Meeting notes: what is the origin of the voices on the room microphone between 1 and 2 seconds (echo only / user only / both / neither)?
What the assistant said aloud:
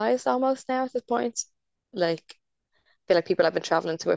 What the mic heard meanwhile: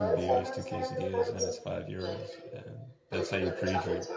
both